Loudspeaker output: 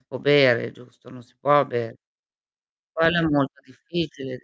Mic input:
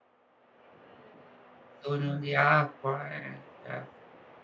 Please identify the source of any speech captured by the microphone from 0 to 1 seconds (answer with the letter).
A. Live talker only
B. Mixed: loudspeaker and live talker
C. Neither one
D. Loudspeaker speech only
C